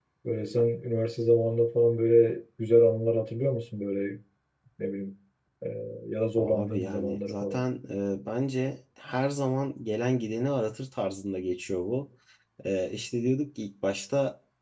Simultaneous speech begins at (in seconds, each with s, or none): 6.4 s